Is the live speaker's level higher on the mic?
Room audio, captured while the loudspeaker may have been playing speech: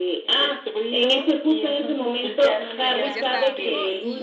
No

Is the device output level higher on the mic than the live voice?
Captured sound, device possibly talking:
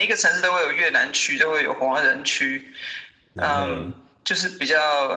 Yes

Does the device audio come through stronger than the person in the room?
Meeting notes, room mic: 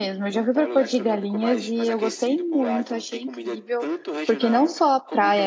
No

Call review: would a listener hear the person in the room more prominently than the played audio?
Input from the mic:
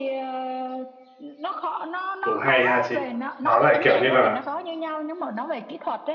Yes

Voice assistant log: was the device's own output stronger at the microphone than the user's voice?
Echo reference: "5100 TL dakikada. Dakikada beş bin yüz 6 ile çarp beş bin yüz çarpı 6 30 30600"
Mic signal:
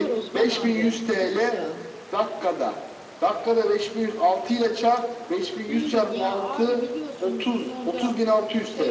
Yes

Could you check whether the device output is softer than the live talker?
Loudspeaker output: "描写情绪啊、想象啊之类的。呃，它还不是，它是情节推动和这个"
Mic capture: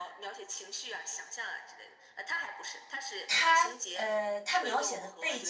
Yes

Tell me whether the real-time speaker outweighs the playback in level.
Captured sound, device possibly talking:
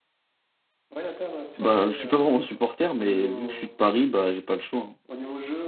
Yes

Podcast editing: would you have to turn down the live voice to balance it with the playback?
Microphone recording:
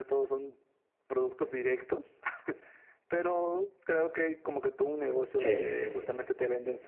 Yes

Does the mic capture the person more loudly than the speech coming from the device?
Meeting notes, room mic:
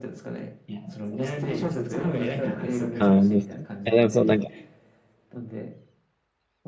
Yes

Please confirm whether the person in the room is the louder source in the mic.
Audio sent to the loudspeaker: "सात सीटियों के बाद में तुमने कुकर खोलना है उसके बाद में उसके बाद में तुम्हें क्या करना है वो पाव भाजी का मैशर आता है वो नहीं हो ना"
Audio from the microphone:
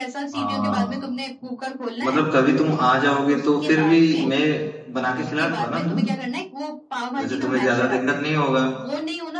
Yes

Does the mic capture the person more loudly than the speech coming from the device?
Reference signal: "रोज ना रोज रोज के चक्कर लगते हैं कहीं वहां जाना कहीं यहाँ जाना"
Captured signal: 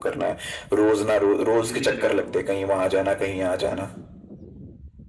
No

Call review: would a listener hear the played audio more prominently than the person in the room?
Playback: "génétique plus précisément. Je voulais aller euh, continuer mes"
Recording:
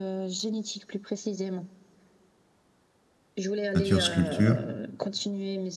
No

